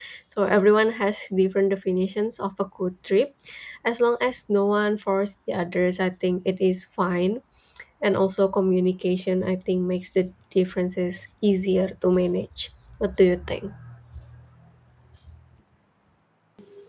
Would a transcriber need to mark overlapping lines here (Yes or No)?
No